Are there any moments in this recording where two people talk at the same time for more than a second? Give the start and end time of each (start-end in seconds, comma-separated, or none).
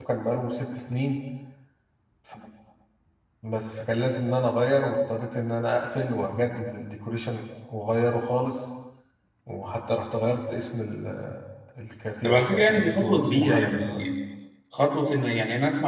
12.2-14.0